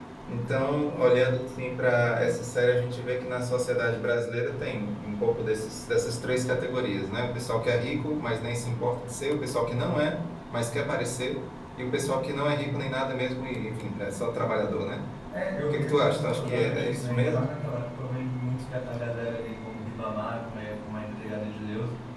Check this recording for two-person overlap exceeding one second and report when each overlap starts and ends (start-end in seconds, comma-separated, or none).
15.7-17.5